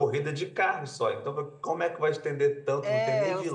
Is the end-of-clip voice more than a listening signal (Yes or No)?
Yes